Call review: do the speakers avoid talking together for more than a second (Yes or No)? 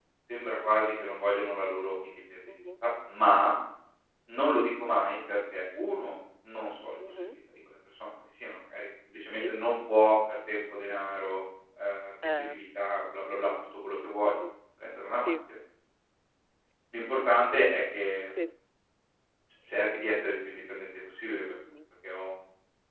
Yes